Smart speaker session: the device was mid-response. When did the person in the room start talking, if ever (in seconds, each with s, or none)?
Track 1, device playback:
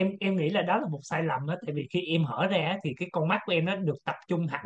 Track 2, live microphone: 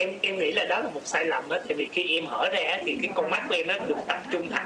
2.7 s